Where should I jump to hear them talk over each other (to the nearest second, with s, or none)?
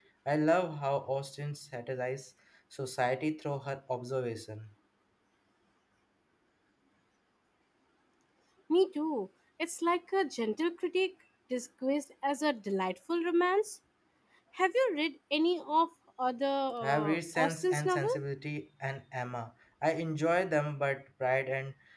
17 s